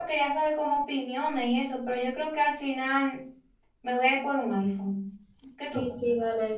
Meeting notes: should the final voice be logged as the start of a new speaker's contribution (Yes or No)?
Yes